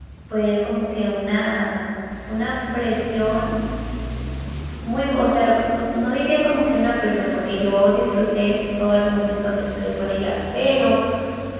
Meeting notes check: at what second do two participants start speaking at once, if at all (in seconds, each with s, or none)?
none